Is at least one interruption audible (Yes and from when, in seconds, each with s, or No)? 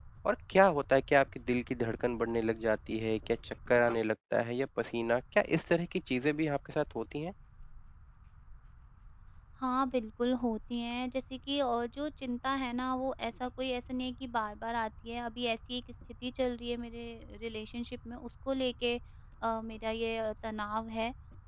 No